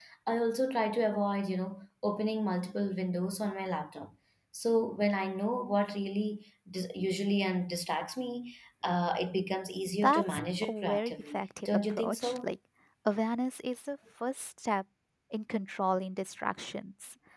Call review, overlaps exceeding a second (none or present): present